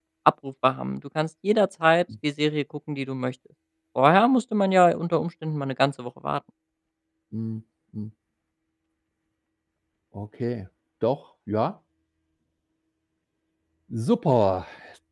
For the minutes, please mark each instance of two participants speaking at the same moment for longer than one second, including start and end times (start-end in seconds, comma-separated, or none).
none